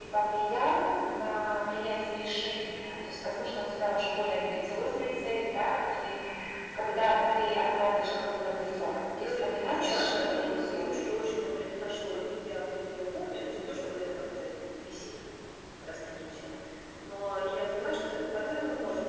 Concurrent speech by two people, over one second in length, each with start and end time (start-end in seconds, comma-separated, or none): 9.2-11.1